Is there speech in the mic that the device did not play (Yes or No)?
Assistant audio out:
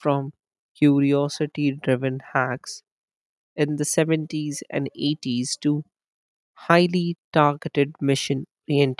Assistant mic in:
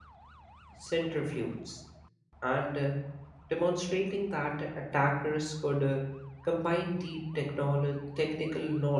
Yes